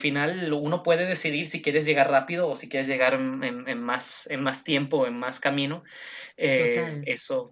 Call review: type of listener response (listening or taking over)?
listening